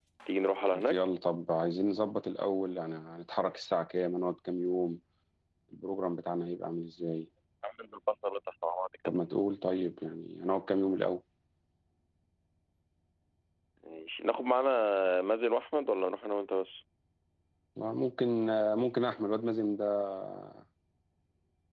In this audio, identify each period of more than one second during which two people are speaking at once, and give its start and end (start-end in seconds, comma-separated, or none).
none